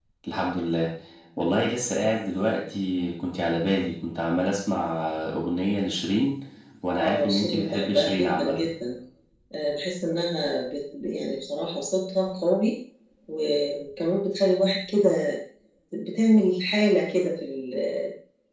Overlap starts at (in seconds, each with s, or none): 7.0 s